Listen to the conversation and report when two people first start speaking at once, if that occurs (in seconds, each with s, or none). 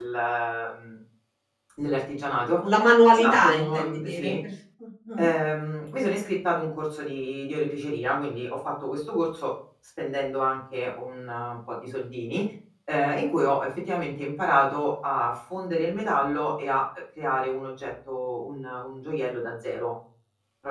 3.1 s